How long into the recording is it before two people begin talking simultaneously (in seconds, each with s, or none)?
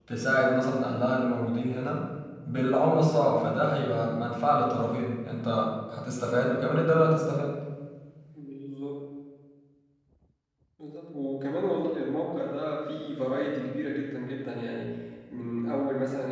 none